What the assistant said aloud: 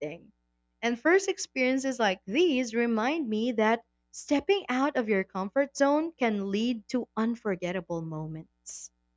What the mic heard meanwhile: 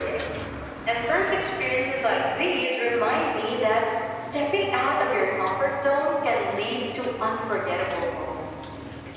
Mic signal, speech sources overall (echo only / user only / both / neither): echo only